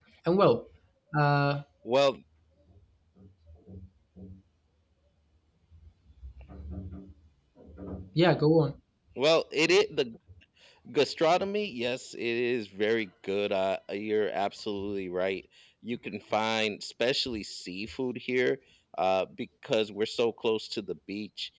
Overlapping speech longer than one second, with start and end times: none

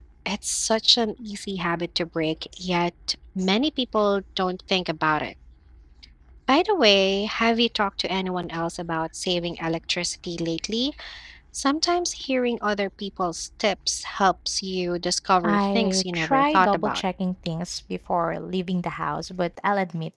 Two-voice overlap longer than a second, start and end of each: 15.4-17.0

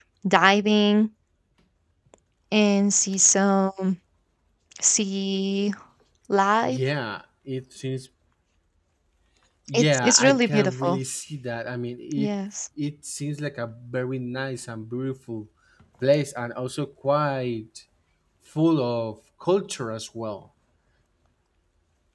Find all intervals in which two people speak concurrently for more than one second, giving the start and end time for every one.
9.7-11.0

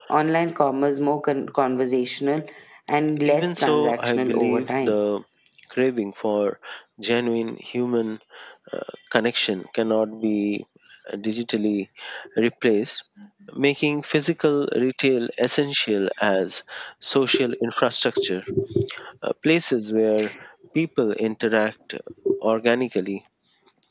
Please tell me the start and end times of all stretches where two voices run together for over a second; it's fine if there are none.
3.2-5.0

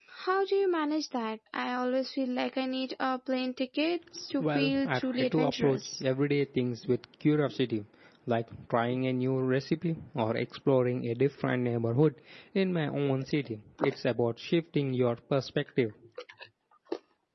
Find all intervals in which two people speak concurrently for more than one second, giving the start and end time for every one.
4.4-6.0

